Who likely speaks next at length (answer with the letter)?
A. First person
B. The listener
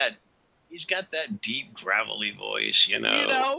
B